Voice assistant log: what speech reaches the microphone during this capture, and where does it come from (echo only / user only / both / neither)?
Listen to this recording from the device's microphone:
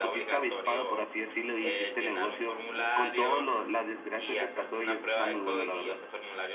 both